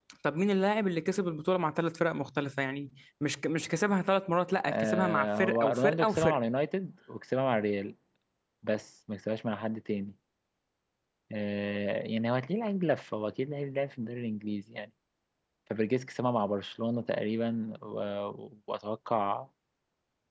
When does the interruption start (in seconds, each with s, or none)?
4.7 s